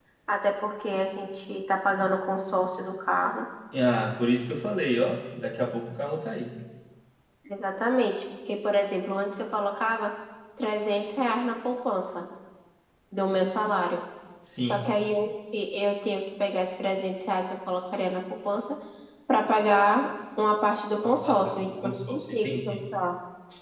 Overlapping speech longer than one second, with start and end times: 21.0-22.8

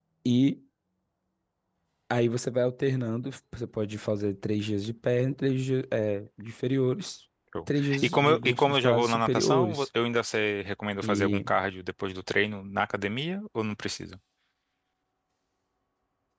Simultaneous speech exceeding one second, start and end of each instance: 7.8-9.9

